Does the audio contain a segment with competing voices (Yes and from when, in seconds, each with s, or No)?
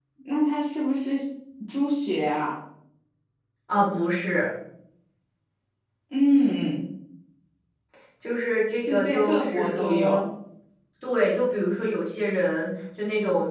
Yes, from 8.7 s